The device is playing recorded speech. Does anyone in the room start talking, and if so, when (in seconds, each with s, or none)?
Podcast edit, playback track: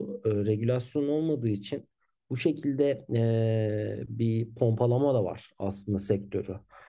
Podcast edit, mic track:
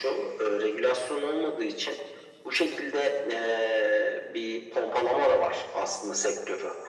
none